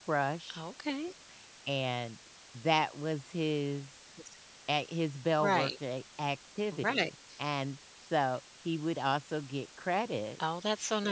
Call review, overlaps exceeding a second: none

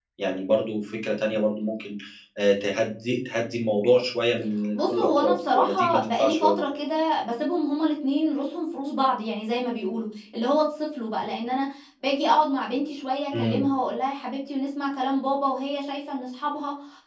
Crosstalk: present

